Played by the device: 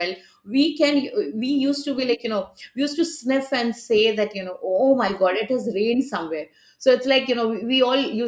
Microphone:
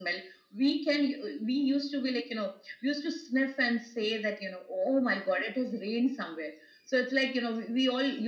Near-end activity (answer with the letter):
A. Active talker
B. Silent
B